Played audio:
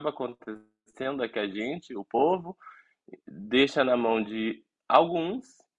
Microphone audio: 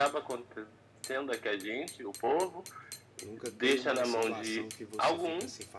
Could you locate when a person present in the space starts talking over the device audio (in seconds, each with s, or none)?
3.2 s